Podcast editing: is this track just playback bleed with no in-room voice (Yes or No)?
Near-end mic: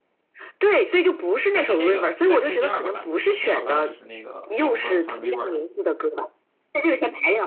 No